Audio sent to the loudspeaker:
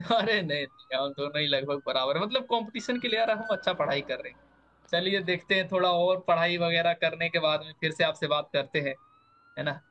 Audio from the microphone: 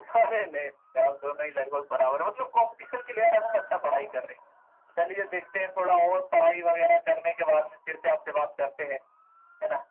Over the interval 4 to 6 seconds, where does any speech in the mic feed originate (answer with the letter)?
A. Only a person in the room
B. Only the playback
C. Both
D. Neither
B